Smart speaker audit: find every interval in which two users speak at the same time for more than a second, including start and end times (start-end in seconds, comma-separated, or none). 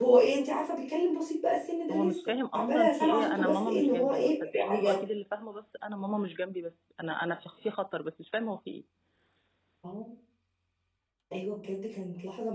1.9-5.0